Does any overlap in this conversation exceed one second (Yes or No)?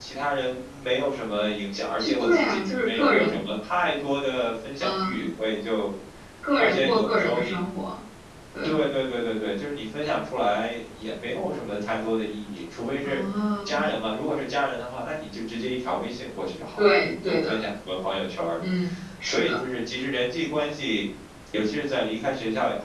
Yes